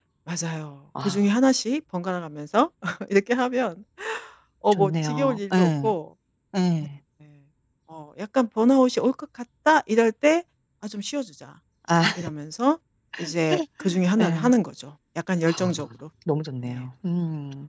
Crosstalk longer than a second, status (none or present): present